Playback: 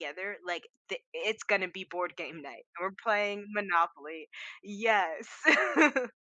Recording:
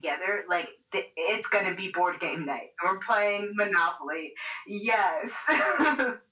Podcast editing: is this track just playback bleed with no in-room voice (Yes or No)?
Yes